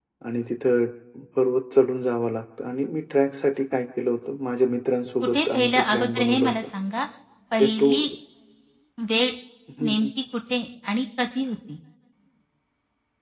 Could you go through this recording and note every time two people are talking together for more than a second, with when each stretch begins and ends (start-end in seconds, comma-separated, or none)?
5.3-6.5